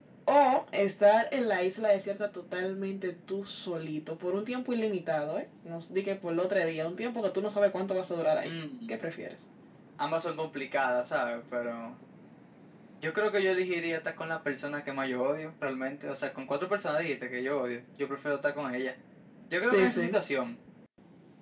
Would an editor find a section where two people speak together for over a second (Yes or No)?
No